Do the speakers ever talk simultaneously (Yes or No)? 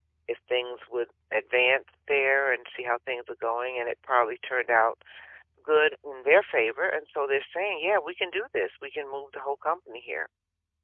No